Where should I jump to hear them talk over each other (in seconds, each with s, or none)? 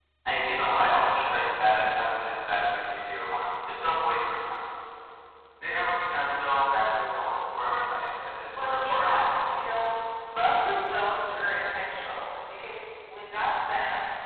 8.5 s